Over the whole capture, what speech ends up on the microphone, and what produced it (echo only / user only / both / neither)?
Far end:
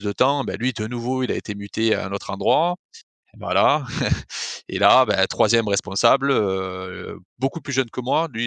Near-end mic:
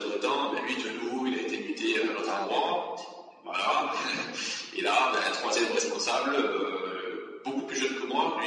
both